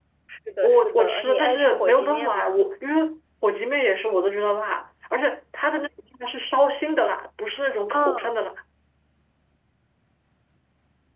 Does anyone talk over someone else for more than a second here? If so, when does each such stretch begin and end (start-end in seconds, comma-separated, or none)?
0.6-2.6